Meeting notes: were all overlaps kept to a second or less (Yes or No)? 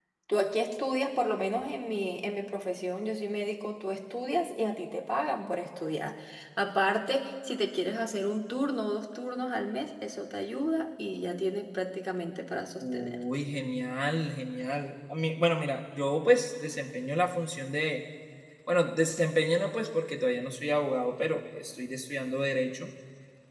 Yes